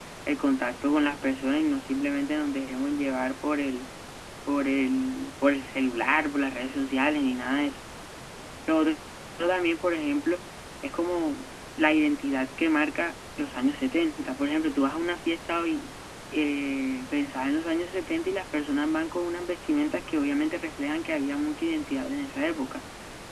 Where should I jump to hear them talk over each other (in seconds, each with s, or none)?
none